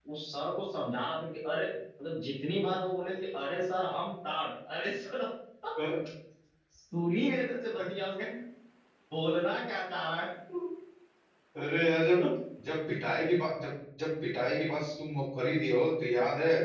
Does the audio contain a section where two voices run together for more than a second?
No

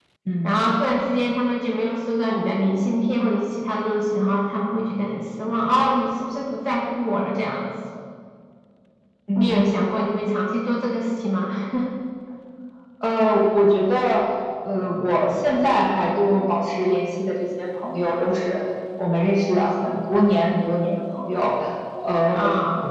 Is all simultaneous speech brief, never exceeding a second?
Yes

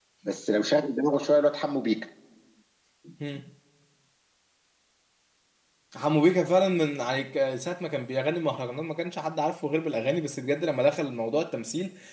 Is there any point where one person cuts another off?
No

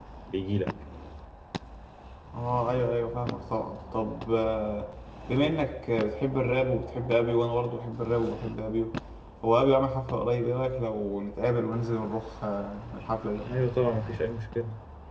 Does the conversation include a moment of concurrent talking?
No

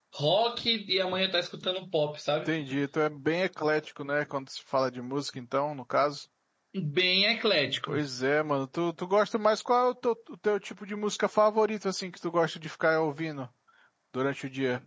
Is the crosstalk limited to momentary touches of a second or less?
Yes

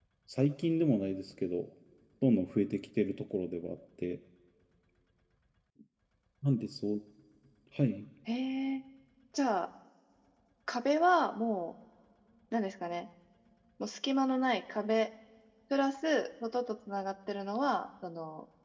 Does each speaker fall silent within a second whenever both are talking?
Yes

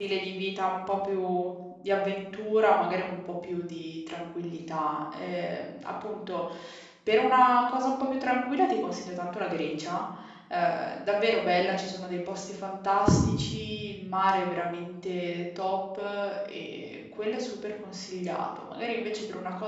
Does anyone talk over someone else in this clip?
No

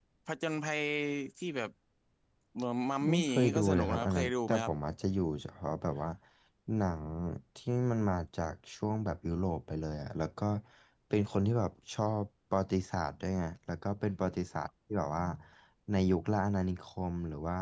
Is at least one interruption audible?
Yes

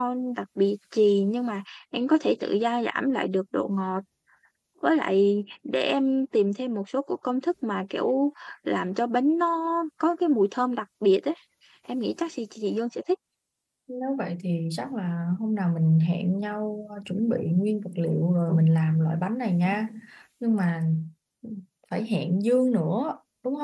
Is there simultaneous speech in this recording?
No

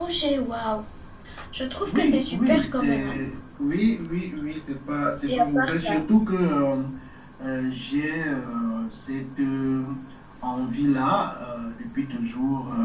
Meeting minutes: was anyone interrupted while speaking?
Yes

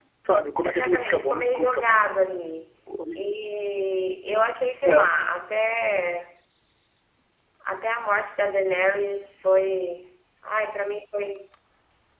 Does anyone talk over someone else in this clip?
Yes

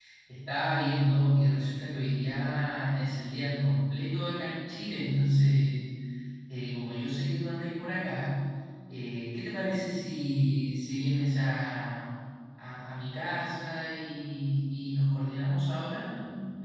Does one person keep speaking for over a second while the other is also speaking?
No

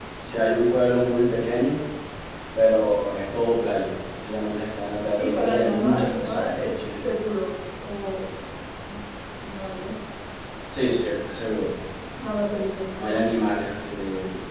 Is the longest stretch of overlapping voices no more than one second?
No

